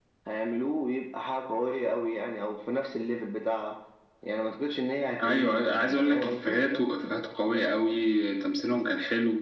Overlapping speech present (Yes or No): Yes